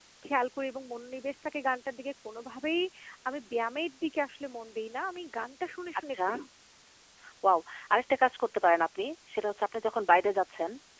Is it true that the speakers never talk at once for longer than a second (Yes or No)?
Yes